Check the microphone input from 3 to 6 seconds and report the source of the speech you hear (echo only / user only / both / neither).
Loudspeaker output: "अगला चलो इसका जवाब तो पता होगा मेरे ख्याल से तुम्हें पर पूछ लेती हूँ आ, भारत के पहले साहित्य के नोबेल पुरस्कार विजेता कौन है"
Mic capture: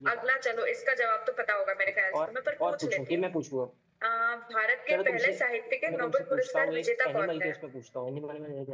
both